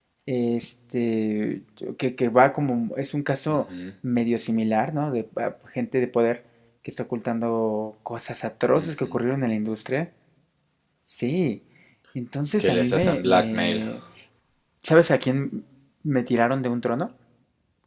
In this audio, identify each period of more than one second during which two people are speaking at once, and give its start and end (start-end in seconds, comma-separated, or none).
12.6-13.8